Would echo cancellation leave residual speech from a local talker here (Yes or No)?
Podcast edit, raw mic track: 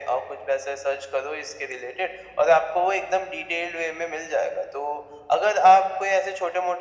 No